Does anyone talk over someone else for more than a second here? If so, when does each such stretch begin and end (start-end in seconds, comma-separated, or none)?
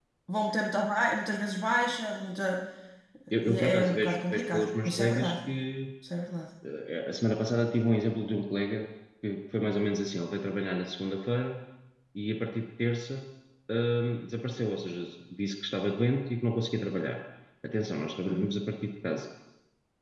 3.4-5.3